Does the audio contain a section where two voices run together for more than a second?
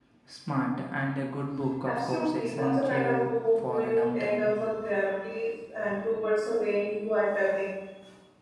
Yes, from 1.8 s

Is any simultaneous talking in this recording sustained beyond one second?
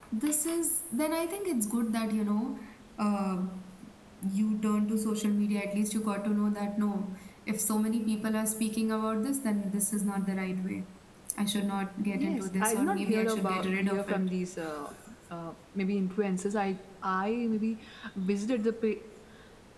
Yes, from 12.1 s

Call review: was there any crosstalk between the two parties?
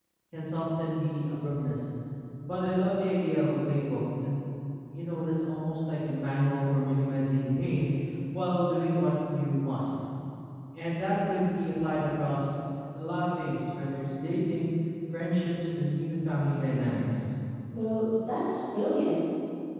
No

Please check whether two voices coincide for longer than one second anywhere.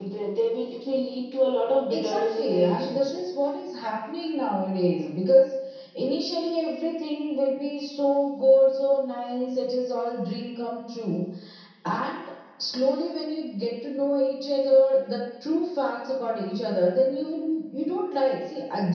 Yes, from 1.9 s

